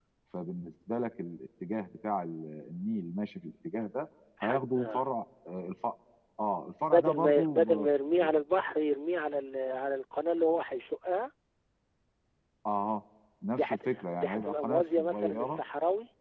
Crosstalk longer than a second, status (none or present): present